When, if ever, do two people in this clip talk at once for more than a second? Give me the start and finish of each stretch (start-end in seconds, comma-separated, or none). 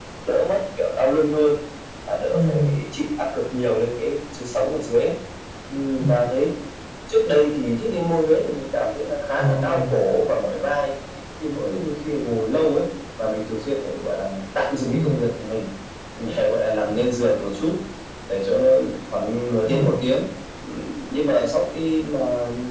none